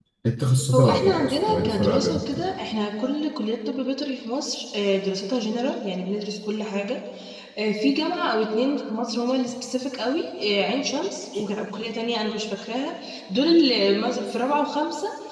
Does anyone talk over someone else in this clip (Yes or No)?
Yes